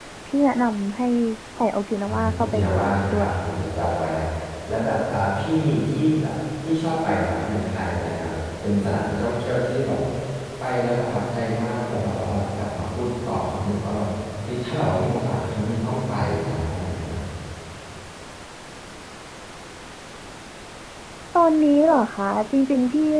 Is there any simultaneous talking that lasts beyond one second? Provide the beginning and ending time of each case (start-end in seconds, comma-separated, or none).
2.1-3.3